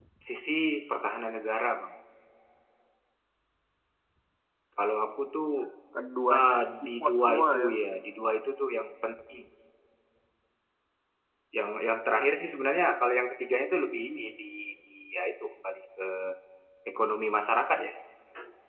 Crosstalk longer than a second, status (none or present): present